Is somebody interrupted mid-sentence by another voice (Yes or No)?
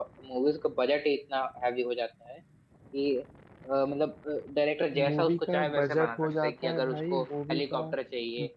Yes